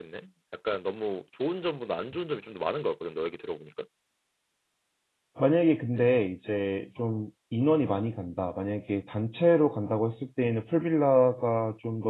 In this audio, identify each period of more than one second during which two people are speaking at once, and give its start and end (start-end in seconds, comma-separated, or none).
none